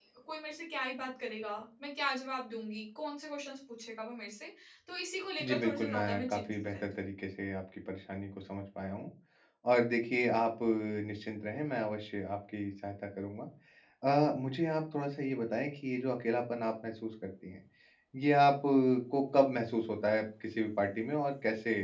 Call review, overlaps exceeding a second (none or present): present